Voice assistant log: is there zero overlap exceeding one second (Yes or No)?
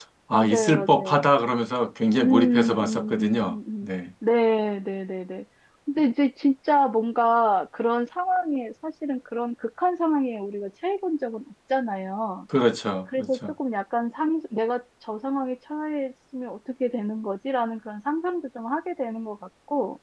No